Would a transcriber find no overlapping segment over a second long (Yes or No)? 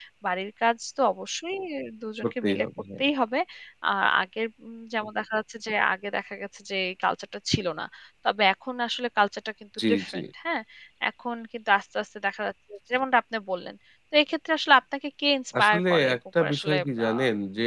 No